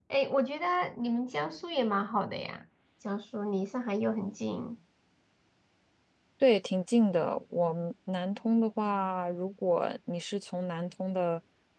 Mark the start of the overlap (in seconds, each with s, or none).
none